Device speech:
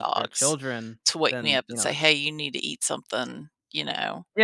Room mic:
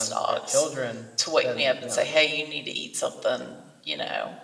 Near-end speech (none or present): none